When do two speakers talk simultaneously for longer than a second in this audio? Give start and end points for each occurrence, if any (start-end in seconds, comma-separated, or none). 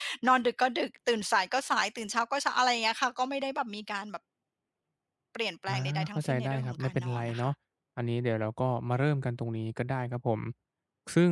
5.7-7.5